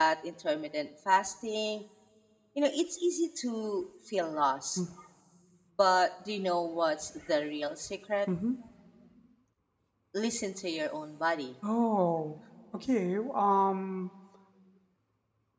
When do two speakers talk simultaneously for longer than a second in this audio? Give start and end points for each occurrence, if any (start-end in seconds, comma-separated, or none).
none